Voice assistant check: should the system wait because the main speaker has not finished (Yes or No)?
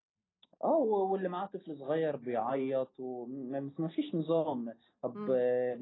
Yes